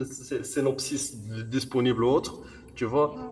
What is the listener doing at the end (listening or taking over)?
taking over